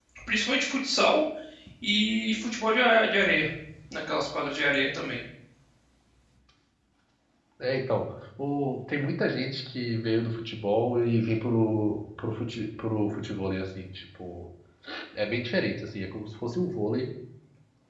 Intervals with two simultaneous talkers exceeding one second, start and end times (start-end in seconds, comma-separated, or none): none